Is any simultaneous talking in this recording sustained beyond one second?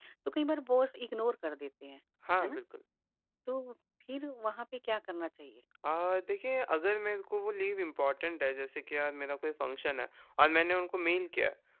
No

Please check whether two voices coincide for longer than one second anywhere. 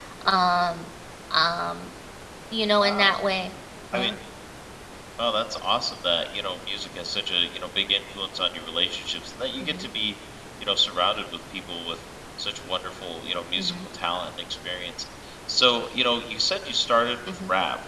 No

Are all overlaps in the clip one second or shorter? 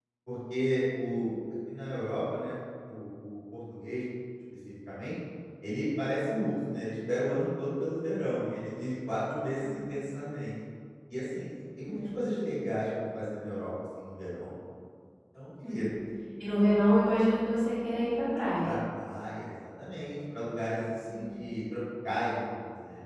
Yes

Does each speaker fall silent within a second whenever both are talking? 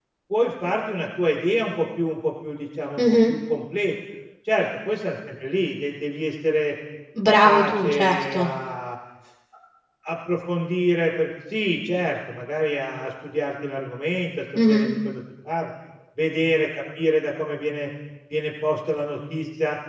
No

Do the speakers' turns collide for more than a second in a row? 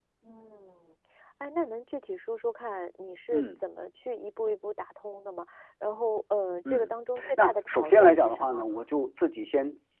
Yes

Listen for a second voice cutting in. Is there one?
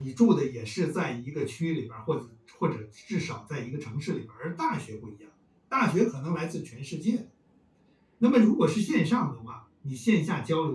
No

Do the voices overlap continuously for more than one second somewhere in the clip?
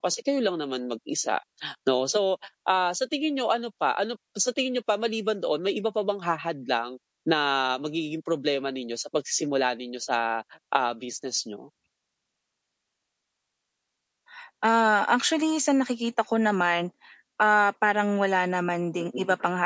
No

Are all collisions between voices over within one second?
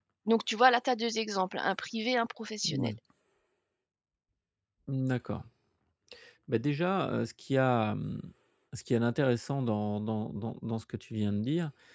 Yes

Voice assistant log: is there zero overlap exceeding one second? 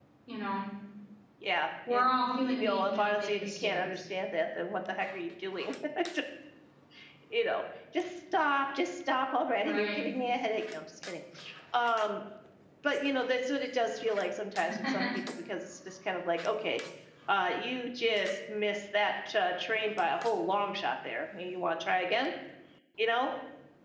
No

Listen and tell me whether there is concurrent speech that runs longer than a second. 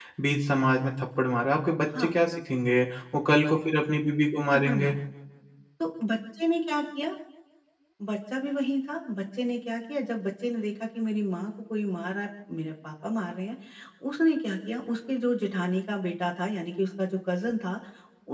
No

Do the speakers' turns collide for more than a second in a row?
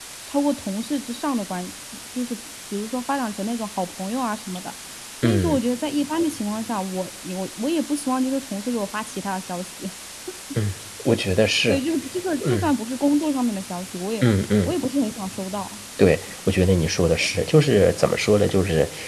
No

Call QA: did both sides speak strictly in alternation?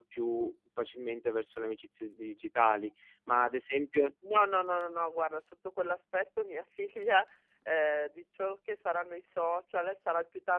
Yes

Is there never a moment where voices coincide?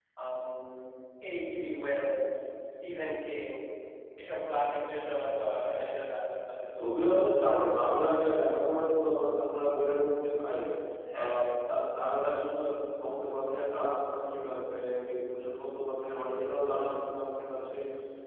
No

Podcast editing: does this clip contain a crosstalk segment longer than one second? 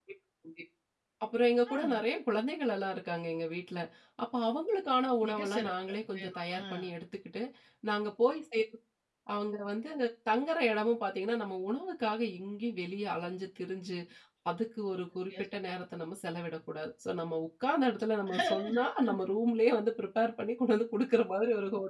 Yes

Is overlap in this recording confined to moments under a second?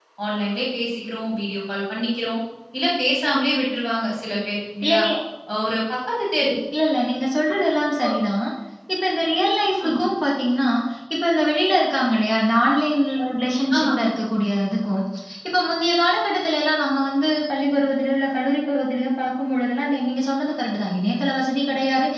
Yes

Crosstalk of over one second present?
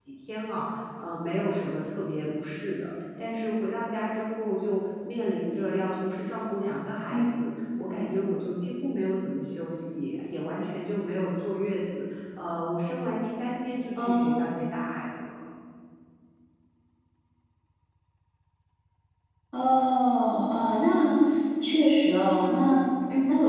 No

